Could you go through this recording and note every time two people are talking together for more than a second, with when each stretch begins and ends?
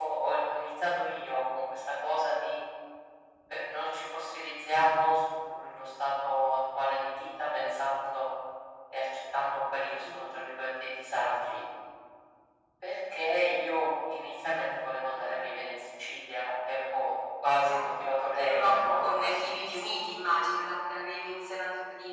18.4-20.0

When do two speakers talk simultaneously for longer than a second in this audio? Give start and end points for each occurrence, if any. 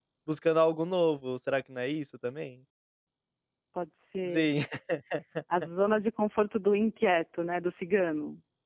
none

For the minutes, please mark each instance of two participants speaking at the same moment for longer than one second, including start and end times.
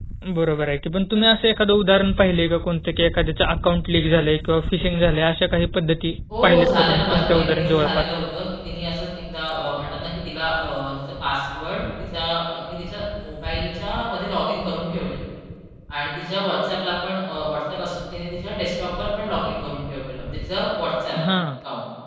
6.4-8.0

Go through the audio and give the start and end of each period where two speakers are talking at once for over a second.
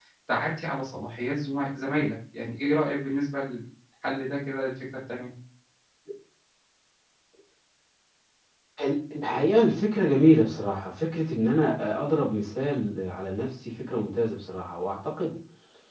none

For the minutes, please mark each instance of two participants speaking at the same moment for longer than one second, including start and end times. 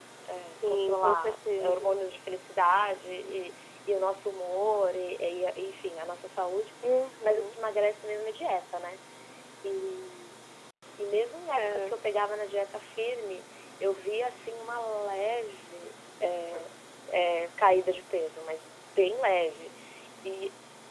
0.7-2.0

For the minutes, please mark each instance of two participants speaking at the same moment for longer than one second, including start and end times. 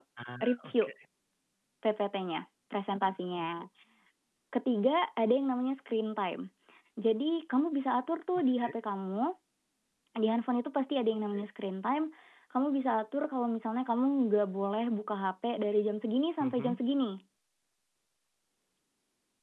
none

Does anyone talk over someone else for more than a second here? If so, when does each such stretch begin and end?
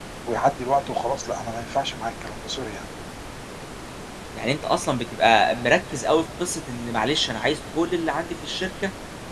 none

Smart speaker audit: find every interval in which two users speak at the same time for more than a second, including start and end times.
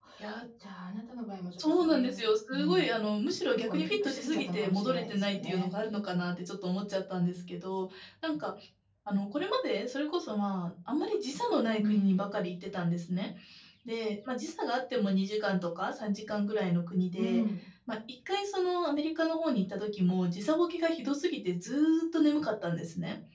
1.6-2.9, 3.5-5.7

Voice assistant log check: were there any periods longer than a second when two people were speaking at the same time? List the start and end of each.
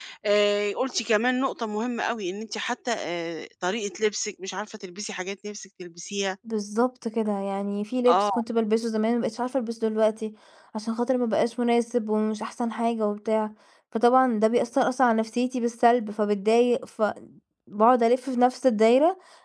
none

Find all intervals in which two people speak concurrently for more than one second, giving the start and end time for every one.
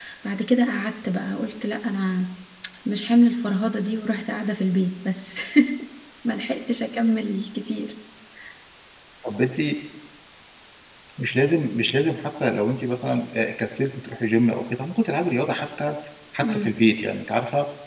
none

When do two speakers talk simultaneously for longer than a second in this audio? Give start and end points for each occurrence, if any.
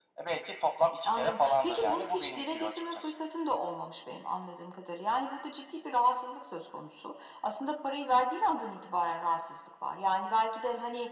1.0-3.1

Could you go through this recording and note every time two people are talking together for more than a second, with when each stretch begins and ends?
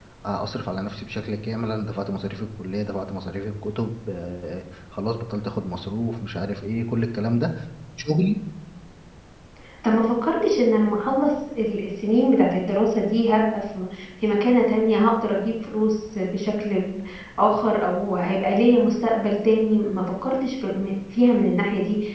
none

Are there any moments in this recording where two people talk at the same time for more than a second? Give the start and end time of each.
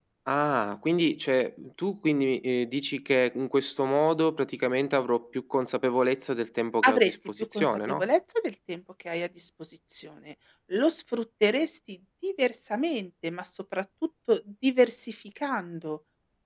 6.8-8.0

